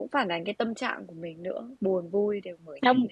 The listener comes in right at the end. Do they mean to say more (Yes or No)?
Yes